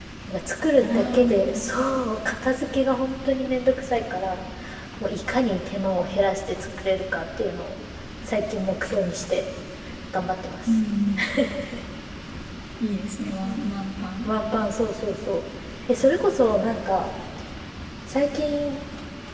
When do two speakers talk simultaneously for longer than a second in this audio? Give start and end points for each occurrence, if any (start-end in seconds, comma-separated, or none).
0.8-2.0